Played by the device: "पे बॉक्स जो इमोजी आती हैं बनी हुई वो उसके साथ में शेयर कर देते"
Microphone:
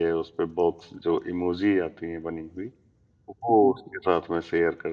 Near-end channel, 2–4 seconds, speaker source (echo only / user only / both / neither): echo only